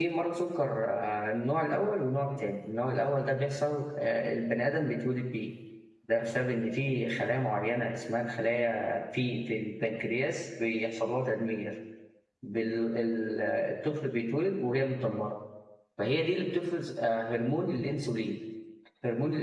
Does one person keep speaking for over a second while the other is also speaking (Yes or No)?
No